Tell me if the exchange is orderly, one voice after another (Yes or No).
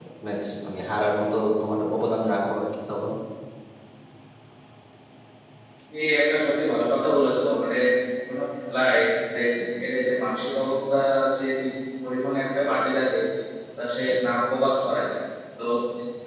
Yes